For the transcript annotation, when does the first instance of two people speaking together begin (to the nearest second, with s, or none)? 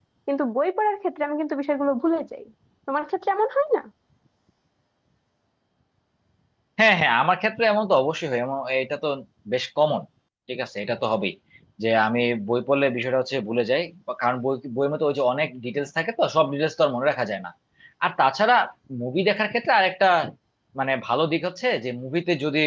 none